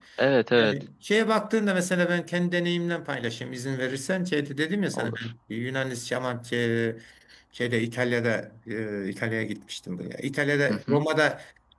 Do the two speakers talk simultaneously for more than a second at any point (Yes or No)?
No